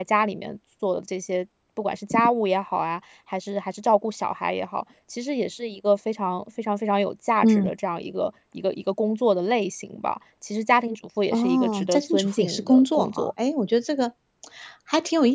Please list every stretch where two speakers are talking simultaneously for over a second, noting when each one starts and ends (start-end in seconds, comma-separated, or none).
11.3-13.3